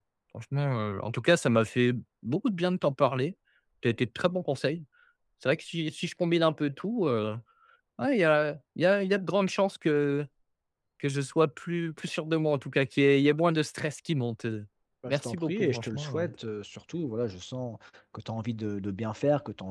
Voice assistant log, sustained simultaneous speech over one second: present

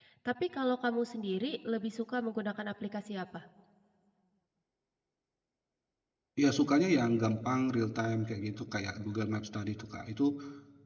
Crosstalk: none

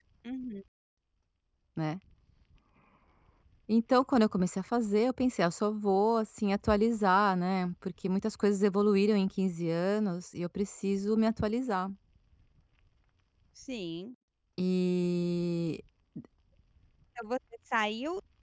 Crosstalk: none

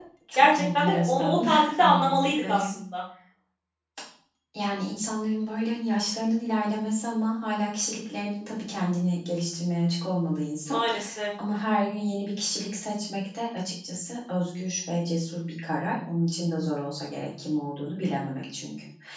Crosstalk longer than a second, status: present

